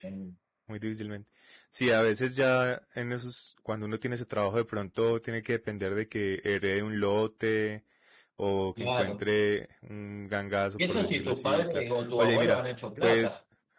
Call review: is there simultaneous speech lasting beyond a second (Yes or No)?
Yes